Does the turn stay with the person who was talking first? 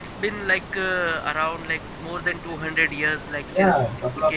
No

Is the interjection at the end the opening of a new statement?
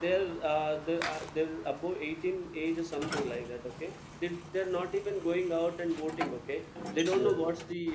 No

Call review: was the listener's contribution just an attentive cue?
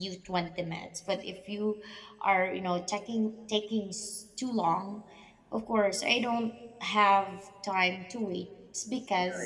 No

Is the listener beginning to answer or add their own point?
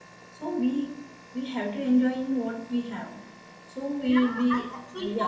Yes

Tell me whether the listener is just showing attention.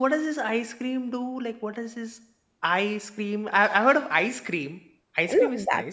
No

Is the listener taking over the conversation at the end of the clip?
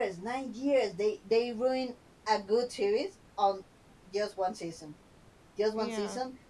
No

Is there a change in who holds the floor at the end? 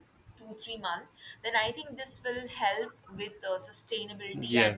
Yes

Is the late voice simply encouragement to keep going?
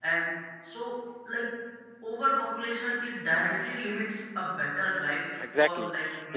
No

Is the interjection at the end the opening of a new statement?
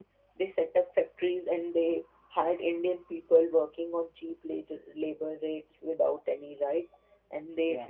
No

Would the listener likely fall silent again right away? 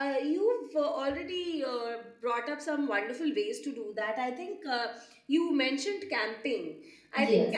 Yes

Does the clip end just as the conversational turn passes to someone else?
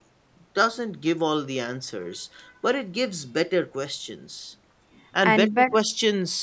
No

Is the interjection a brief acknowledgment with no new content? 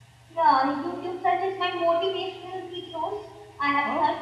Yes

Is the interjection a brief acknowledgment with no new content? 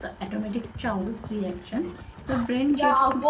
No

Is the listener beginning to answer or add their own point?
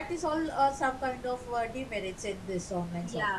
Yes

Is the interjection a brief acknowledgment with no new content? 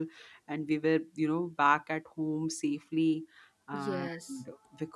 Yes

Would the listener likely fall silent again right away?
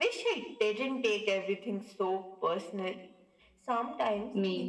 Yes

